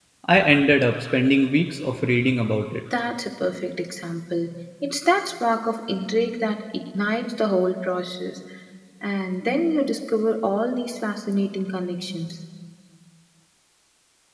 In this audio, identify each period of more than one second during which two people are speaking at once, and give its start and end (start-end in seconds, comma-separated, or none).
none